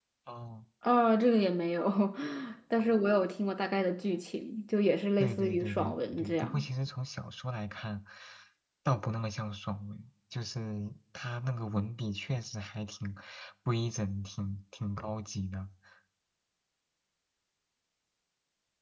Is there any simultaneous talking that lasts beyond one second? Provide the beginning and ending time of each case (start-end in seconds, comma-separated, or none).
5.2-6.7